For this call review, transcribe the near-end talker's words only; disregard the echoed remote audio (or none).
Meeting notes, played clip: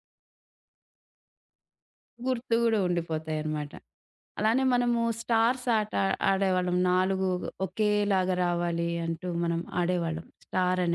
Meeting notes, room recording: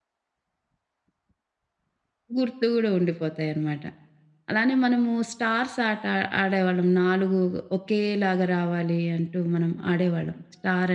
none